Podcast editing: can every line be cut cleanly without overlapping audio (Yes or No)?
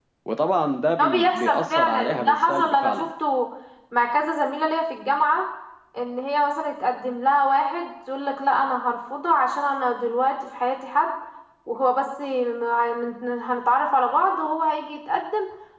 No